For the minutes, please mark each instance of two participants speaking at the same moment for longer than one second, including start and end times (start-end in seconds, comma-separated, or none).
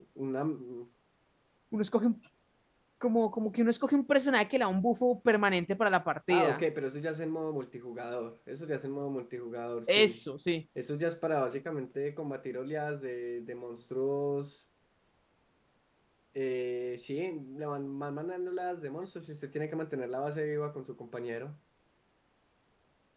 none